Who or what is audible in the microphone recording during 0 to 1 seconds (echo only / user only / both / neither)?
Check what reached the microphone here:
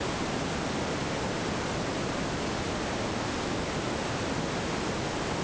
neither